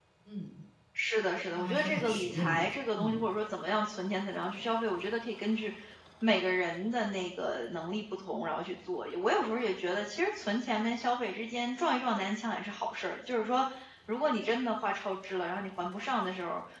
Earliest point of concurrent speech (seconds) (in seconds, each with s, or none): 1.5 s